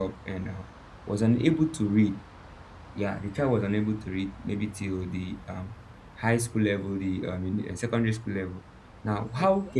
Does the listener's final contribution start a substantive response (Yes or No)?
No